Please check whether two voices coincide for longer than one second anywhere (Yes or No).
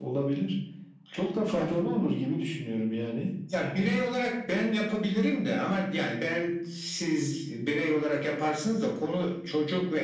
No